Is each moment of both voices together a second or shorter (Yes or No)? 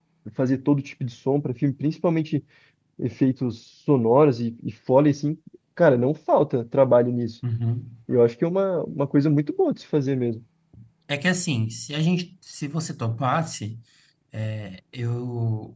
Yes